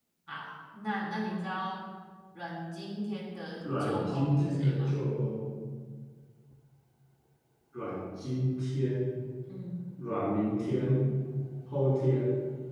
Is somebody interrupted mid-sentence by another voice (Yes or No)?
Yes